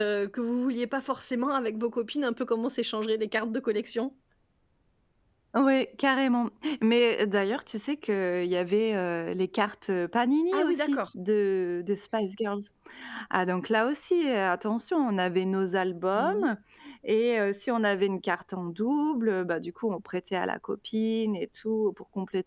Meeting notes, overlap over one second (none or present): none